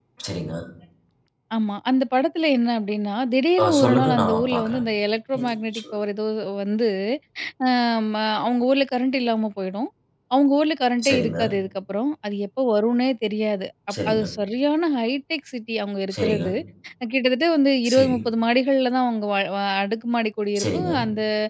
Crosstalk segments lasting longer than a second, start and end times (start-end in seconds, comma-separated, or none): 3.6-4.8